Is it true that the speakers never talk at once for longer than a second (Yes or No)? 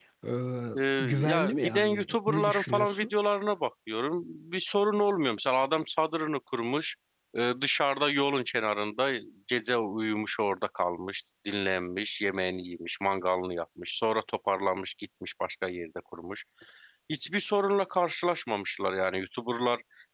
No